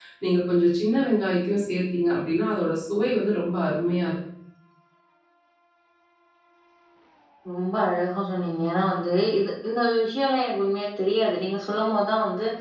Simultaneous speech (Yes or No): No